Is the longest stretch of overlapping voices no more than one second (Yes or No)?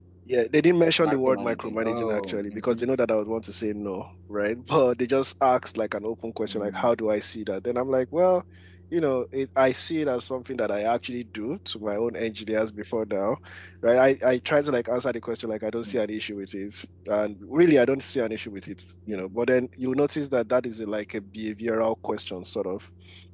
No